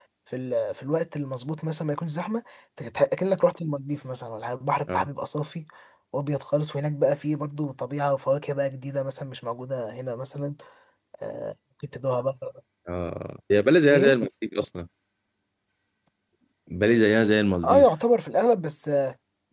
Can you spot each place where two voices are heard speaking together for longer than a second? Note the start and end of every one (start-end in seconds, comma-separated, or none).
none